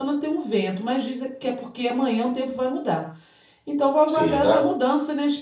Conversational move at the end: listening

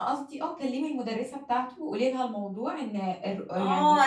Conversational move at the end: taking over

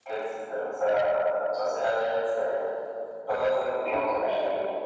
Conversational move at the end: taking over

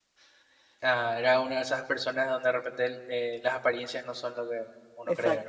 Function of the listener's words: taking over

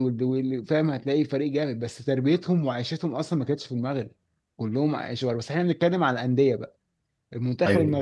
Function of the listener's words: listening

